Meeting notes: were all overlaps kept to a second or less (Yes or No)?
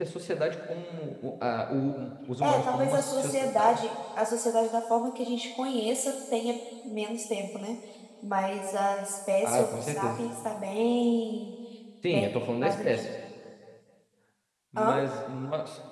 No